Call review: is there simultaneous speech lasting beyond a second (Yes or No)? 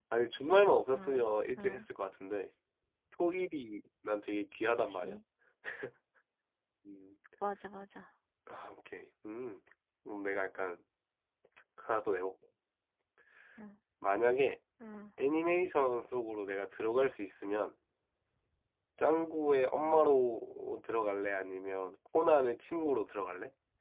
No